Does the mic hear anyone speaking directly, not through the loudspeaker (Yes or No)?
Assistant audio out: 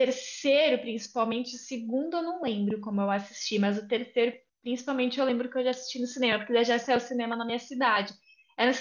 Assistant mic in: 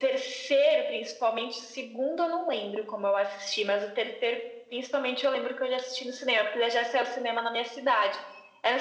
No